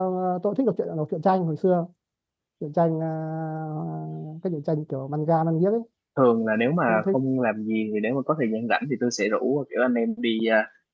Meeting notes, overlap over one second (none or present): none